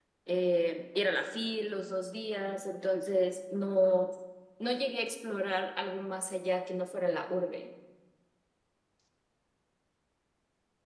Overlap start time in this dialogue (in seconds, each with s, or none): none